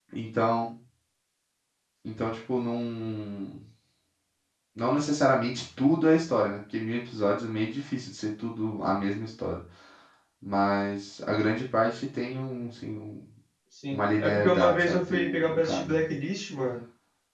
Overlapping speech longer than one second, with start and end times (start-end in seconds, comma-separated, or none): 13.9-16.0